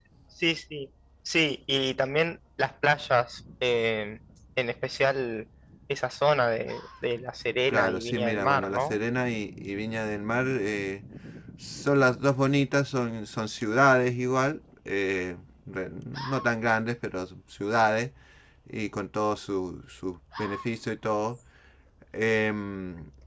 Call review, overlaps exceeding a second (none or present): present